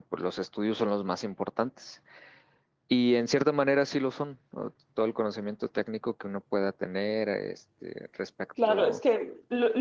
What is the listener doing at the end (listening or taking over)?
taking over